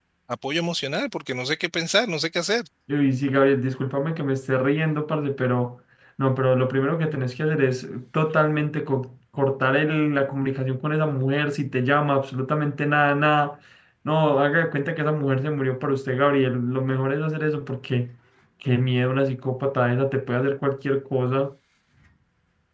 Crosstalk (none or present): none